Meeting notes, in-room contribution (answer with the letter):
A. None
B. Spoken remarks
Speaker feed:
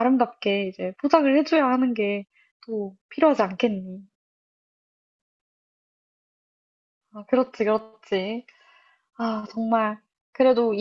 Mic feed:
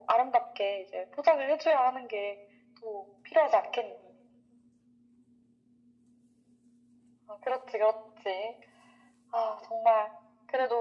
A